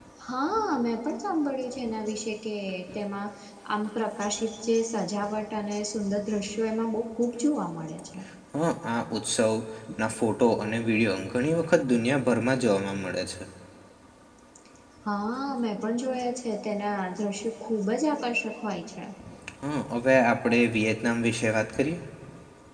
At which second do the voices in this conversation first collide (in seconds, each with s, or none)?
none